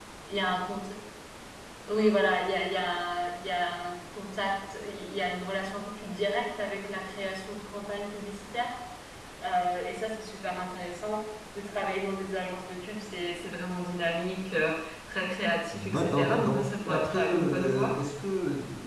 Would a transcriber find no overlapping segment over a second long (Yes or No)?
No